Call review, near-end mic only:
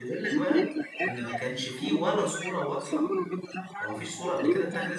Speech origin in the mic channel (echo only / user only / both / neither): both